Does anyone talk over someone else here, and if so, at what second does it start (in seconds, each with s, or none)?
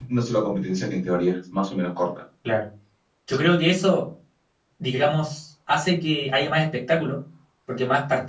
none